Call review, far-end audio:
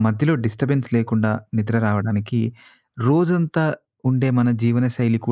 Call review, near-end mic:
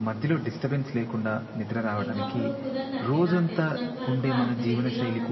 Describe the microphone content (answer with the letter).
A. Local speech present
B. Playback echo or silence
A